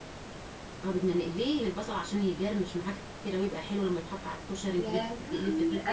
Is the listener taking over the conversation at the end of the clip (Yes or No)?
Yes